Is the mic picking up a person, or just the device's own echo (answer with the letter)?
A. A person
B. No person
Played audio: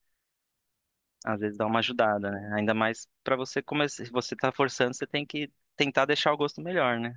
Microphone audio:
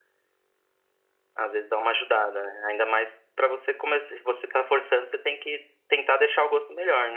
B